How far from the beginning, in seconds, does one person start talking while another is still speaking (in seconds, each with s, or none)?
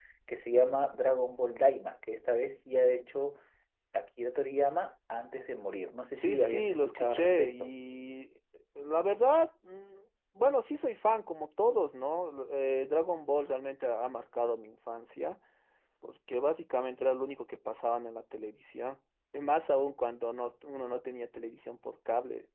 6.2 s